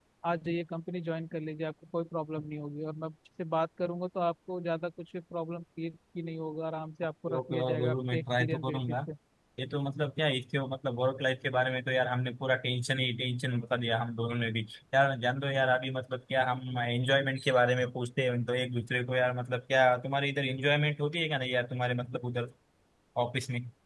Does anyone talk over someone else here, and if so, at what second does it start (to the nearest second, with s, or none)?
7 s